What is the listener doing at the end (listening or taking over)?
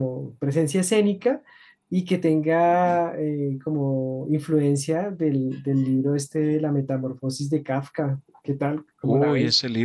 taking over